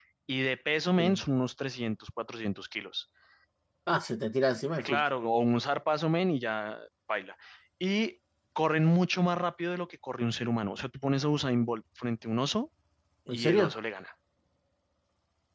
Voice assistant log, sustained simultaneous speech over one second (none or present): none